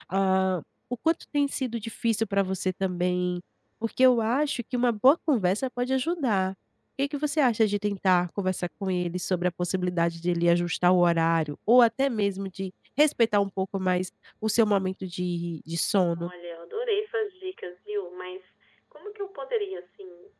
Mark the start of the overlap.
none

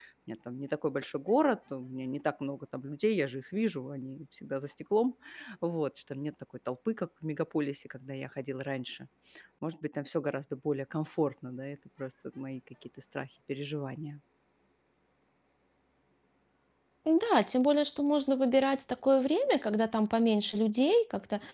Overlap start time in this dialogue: none

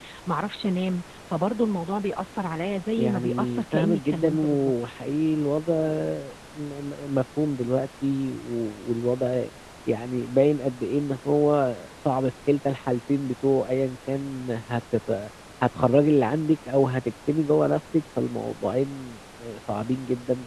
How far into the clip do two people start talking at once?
3 s

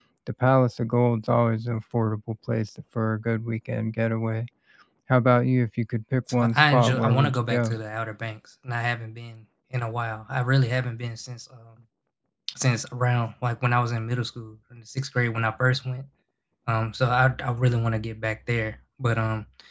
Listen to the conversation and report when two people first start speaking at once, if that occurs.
6 s

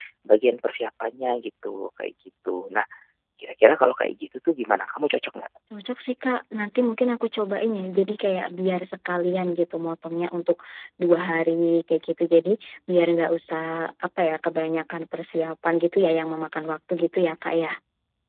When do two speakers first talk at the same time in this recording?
none

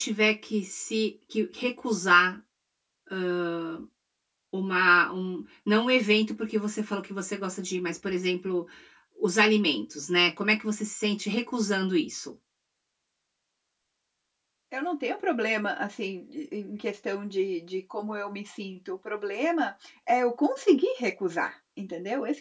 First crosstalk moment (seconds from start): none

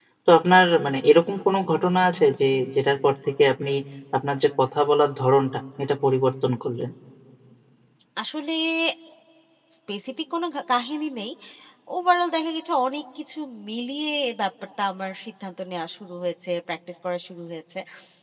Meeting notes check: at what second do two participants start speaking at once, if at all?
none

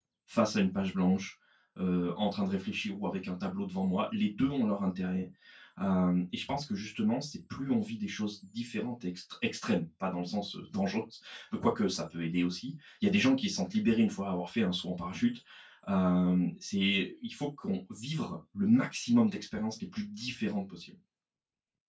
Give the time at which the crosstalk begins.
none

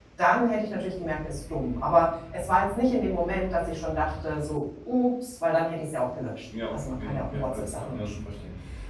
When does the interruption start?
7 s

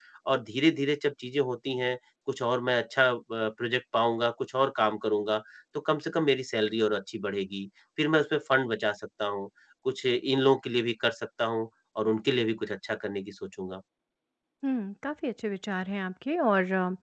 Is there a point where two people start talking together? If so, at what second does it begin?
none

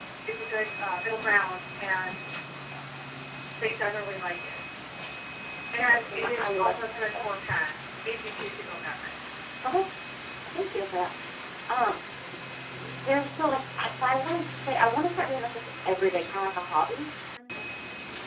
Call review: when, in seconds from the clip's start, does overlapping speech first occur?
6 s

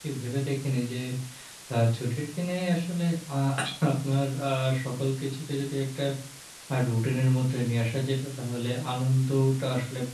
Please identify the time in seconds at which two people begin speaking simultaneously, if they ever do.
none

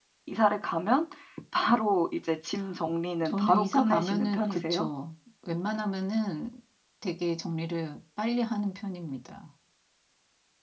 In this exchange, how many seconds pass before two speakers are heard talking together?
3 s

